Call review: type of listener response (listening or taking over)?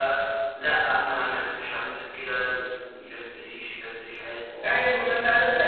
taking over